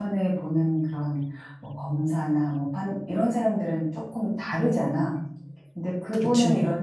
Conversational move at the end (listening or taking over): listening